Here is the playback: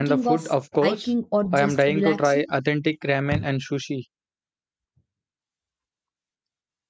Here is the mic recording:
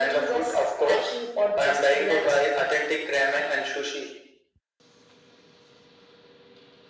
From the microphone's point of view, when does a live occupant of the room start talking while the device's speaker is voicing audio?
none

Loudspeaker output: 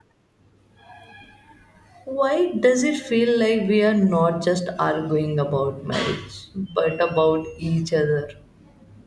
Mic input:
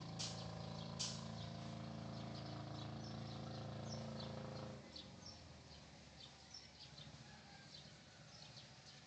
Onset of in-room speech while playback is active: none

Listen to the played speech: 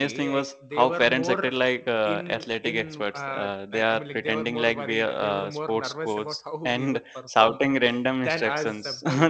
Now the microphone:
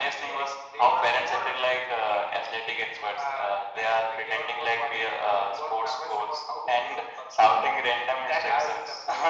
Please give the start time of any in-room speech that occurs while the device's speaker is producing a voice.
none

